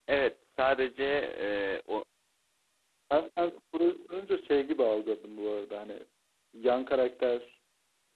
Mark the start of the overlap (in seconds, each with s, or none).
none